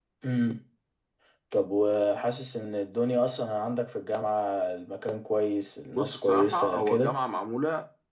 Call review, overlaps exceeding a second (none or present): present